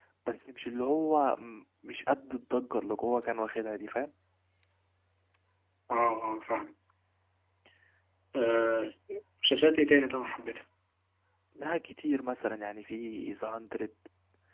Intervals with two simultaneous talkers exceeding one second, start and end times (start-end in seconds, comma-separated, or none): none